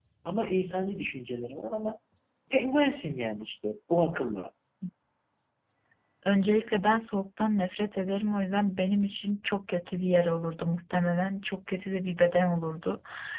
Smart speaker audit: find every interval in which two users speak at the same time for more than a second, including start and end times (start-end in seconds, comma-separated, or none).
none